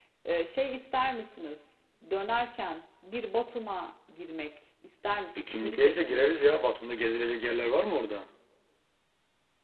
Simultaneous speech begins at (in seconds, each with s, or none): 5.4 s